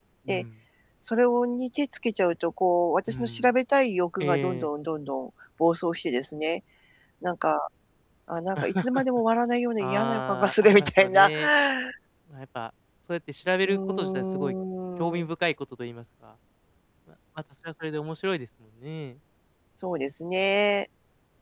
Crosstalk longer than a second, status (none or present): present